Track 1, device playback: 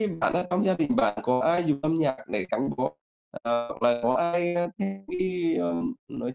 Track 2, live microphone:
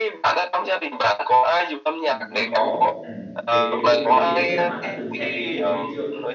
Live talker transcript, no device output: nó có, ừm, cái cái bộ phim đấy thì không biết là bạn đã từng xem cái phim đấy hay chưa?

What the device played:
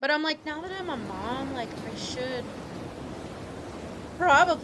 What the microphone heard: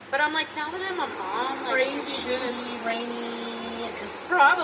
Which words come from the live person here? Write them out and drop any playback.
crazy windy, rainy, just

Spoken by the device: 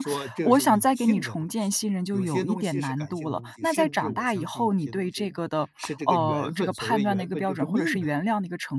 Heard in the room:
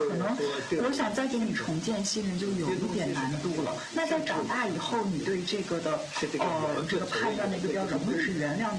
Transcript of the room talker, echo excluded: none

